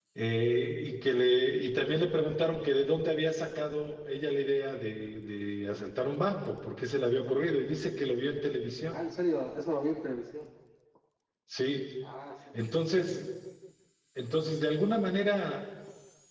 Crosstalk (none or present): none